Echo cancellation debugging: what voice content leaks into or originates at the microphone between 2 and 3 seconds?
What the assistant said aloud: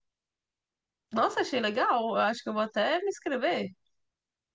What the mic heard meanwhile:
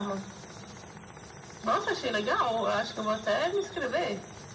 echo only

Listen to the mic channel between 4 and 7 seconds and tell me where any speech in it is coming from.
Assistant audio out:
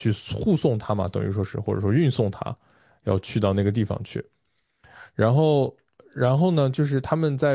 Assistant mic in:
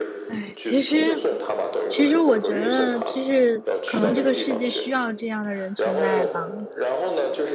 both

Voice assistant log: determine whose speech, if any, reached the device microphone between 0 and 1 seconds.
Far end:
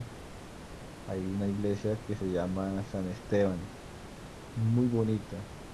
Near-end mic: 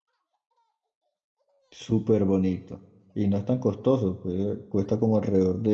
neither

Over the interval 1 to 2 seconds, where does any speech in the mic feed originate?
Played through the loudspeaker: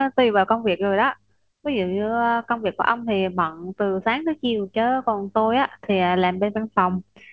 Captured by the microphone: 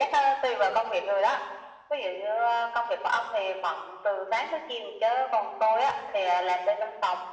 echo only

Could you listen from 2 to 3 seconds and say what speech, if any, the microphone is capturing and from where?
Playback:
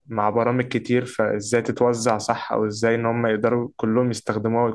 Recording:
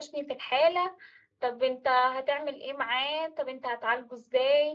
user only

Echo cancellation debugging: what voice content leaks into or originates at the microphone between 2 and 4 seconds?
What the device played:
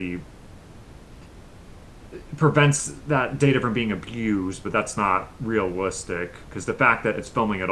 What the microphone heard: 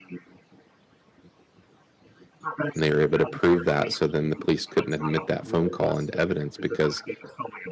both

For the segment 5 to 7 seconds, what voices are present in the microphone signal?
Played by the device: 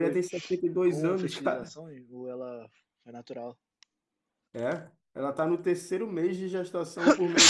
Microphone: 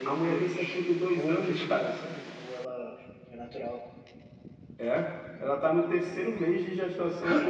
echo only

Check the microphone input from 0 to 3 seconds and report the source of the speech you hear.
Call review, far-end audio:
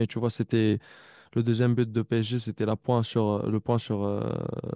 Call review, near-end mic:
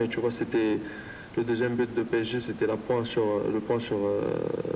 echo only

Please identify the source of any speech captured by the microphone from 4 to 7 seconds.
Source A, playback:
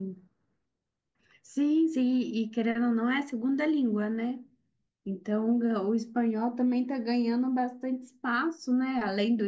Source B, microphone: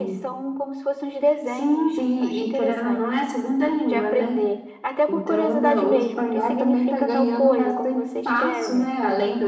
both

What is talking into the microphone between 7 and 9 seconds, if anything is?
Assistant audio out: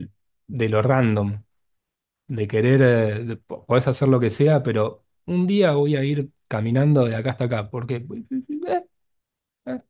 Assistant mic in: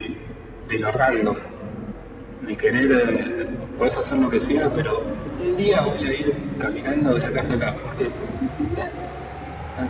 echo only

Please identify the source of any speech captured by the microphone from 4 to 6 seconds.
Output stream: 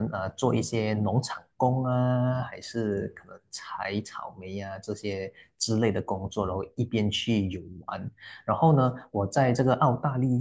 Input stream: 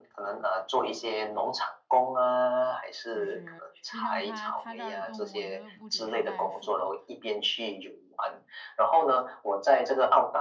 both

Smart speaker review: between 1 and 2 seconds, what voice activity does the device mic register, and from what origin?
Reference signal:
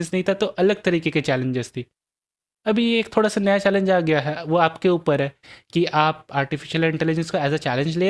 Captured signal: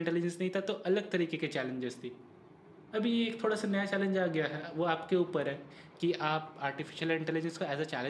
echo only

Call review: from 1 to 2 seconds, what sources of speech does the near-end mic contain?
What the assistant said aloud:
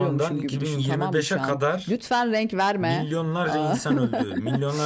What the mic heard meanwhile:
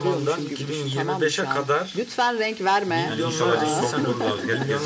echo only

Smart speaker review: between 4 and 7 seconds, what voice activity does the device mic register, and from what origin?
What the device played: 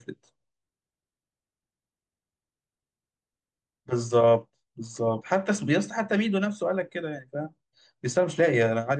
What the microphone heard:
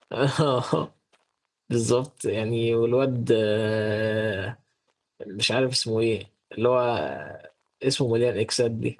user only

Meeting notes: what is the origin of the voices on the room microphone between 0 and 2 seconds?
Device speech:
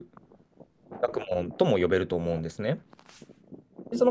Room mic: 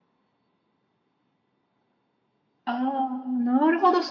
neither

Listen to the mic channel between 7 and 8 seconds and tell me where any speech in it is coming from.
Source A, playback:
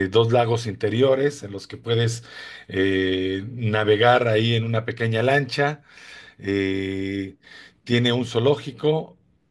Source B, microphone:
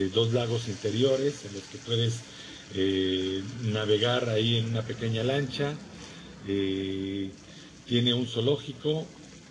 echo only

